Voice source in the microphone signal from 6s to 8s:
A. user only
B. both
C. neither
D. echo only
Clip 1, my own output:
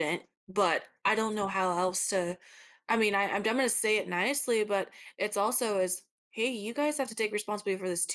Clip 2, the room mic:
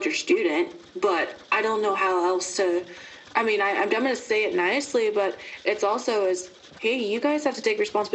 D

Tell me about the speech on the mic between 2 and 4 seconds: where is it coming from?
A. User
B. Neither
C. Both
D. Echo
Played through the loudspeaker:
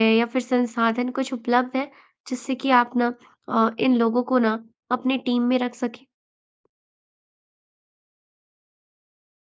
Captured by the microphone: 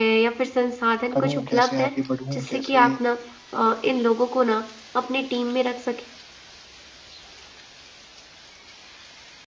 C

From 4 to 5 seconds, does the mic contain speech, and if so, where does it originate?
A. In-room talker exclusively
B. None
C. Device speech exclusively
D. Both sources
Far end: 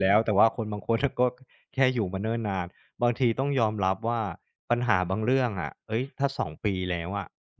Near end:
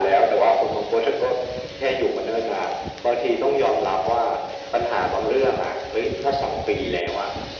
C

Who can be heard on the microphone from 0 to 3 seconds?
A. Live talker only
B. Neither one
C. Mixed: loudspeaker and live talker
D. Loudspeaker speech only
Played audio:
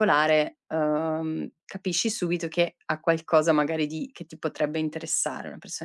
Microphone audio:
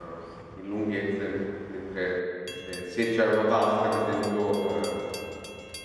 A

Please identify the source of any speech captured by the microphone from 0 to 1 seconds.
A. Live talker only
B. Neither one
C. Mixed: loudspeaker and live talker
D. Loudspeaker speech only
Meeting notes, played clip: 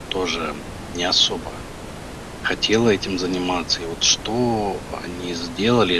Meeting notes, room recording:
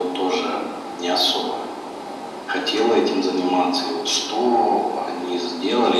D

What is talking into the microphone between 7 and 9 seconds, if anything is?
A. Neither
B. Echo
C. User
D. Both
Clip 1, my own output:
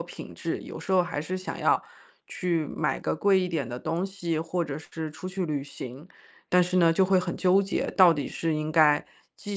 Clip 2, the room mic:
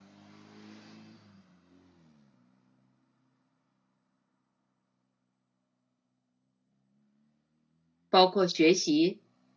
C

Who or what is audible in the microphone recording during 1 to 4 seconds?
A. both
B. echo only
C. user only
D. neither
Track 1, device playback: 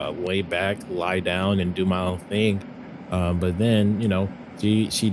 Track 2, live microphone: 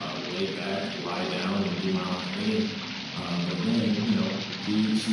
B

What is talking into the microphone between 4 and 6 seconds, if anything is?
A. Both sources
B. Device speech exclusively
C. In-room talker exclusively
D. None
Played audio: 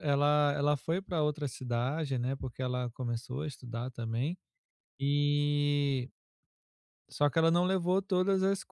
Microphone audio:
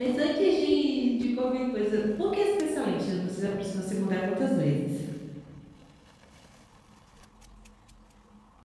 C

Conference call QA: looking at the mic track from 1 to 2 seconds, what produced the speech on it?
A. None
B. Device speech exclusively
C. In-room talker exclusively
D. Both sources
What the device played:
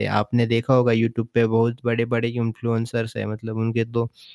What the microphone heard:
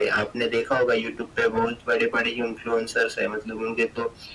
B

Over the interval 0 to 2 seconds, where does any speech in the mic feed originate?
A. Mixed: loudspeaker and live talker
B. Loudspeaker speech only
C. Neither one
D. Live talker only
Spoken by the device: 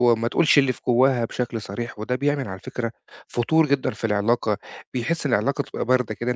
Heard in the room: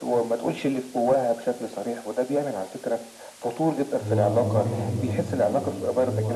B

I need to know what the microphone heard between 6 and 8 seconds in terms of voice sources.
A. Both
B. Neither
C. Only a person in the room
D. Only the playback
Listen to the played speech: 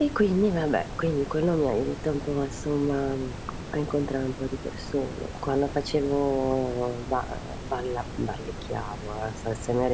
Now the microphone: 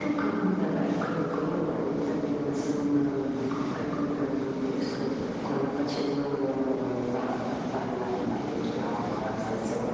D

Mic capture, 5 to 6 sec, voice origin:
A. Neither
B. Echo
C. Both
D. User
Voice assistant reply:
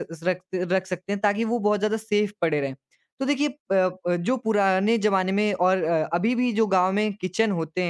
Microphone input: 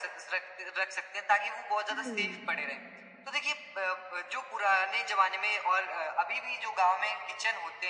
B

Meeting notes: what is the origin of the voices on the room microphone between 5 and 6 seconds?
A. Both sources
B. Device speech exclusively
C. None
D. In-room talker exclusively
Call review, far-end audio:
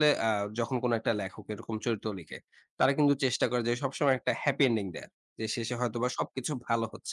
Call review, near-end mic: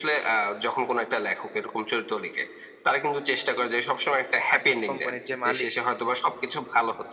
A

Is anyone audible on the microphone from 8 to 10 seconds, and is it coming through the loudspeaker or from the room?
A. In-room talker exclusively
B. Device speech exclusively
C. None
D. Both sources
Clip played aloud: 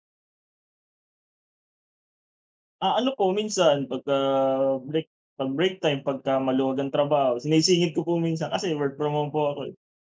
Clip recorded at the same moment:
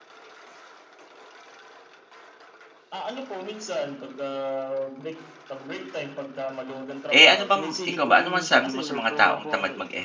D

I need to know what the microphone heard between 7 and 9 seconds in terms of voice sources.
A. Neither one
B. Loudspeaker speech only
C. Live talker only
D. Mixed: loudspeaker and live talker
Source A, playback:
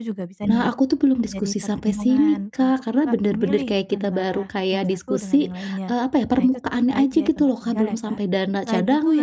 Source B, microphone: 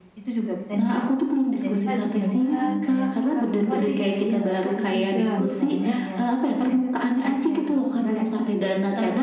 B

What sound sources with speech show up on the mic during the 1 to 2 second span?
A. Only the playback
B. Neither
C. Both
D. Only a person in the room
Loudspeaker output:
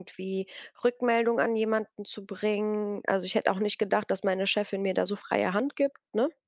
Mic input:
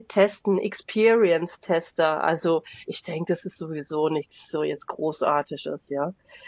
D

